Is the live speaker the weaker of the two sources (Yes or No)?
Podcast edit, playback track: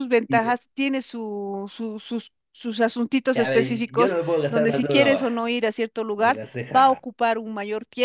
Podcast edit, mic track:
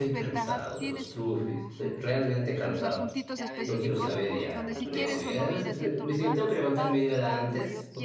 No